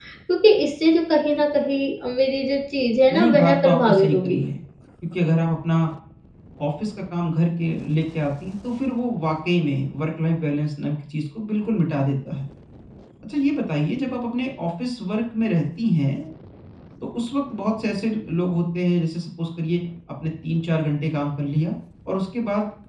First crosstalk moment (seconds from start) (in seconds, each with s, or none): 3.1 s